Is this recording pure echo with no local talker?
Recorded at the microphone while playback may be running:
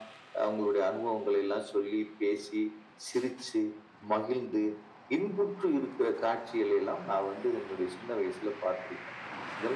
Yes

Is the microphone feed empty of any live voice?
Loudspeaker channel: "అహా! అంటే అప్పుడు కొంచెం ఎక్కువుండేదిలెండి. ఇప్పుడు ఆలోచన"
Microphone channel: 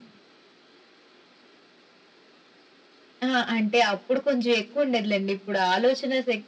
Yes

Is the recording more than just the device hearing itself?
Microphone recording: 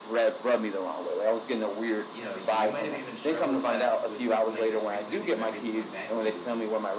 Yes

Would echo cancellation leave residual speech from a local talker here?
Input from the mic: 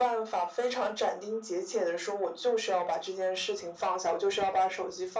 No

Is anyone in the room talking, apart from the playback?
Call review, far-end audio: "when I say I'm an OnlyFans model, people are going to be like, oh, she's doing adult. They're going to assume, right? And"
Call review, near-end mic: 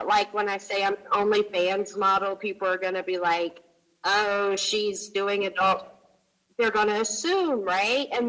No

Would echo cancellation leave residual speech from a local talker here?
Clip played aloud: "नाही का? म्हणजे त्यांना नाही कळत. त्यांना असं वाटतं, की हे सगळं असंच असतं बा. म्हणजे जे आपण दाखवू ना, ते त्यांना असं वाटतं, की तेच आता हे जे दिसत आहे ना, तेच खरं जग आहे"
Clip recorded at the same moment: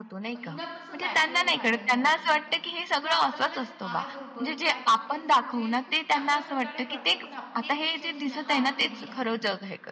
Yes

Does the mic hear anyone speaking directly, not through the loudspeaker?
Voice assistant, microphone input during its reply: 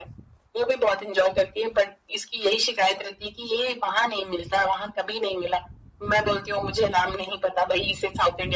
No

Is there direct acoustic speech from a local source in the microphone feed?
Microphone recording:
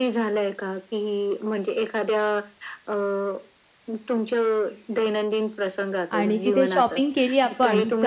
Yes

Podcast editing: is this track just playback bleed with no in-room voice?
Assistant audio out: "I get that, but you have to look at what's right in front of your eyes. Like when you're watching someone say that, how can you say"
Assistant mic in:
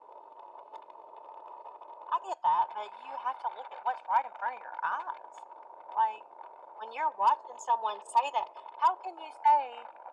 Yes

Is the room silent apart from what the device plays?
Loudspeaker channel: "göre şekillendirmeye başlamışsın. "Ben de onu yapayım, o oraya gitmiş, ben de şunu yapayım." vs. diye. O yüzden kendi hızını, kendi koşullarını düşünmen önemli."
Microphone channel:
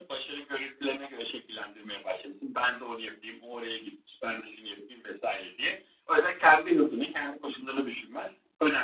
Yes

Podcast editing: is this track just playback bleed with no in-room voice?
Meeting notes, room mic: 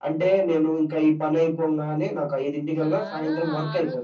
No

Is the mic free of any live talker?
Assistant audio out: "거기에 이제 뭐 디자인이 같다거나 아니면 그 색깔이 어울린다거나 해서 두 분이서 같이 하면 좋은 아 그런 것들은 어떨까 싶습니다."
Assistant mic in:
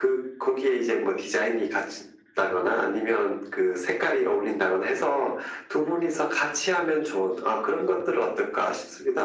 Yes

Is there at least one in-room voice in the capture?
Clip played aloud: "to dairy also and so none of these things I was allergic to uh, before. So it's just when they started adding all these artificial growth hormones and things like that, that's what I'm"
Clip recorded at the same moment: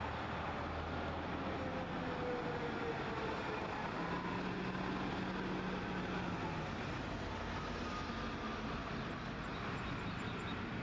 No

